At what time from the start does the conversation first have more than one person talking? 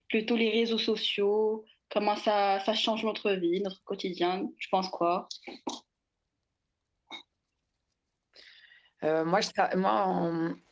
none

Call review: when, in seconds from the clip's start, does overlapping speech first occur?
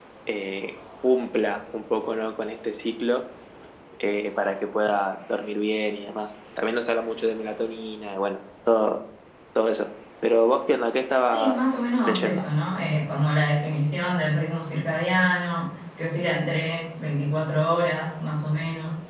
11 s

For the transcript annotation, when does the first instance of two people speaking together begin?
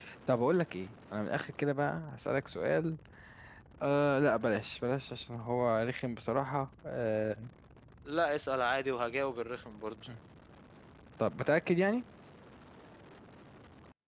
none

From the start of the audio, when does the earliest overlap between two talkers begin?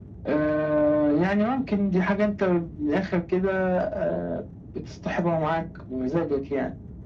none

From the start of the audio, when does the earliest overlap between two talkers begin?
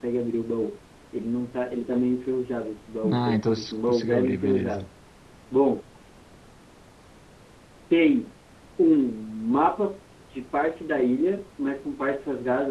3 s

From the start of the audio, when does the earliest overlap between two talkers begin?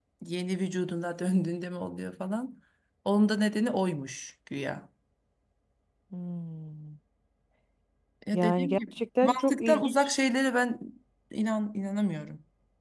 8 s

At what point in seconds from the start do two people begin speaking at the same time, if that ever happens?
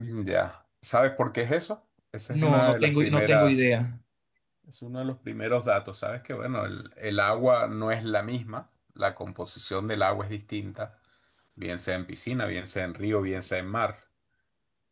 2 s

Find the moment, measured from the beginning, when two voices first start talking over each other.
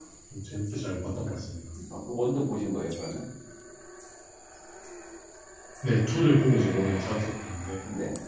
none

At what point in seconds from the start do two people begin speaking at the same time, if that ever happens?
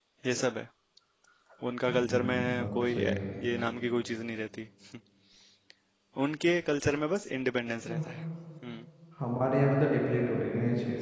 2 s

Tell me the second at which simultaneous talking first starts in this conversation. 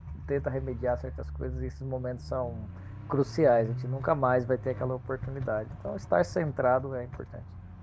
none

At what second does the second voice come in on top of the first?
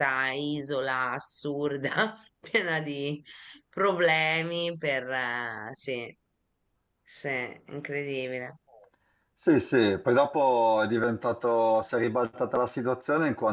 none

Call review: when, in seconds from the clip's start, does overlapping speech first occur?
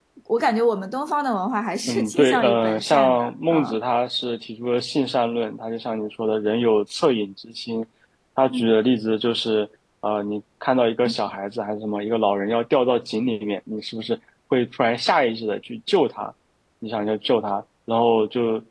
2 s

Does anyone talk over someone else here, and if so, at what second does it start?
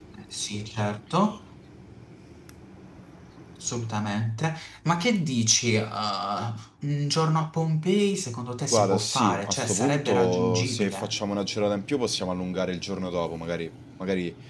9 s

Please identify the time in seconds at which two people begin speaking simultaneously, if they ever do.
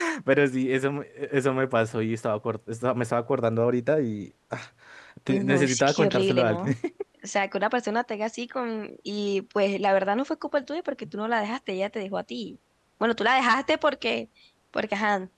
5 s

